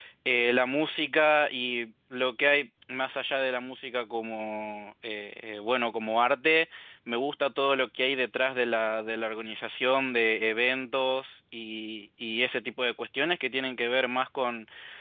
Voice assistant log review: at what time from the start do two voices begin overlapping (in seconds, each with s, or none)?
none